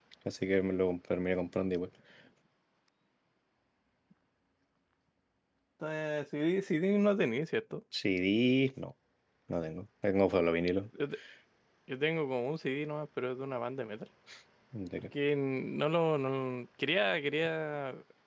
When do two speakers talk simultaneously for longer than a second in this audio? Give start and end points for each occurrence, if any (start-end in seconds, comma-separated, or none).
none